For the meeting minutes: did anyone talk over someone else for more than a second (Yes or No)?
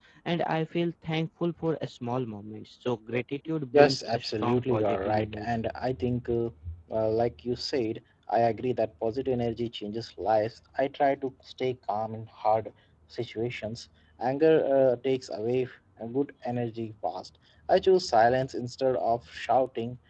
Yes